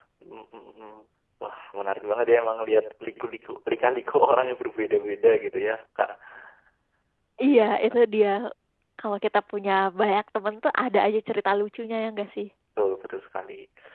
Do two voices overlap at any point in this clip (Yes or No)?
No